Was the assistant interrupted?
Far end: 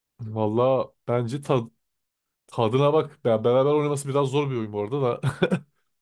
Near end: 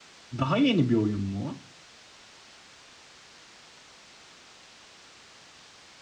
Yes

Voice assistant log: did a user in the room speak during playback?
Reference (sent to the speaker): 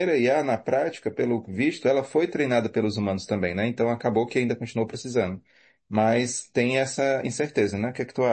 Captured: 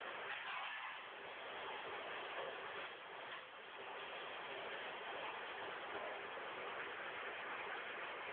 No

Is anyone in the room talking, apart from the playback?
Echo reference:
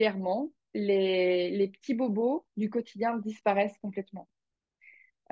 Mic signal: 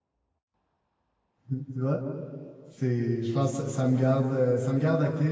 Yes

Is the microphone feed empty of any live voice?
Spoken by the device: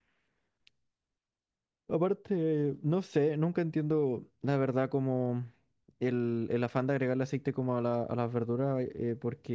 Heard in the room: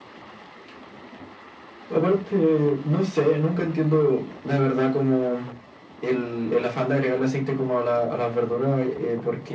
Yes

